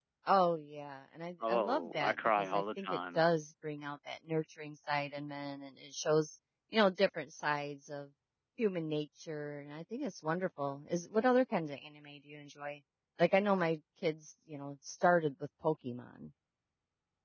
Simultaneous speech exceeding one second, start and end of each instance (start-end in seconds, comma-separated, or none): 1.4-3.2